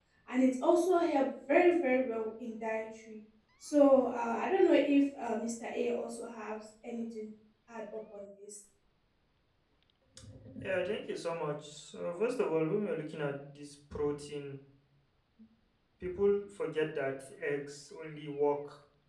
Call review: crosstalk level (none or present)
none